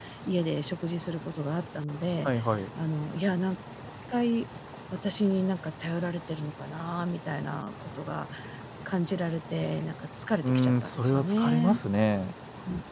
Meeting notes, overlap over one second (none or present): present